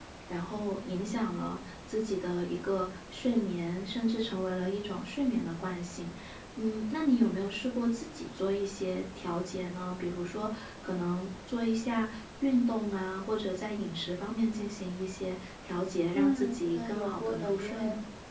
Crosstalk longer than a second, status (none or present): present